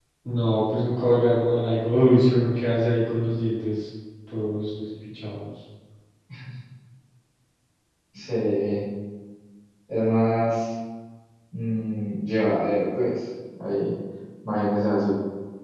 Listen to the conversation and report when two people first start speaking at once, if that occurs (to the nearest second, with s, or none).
none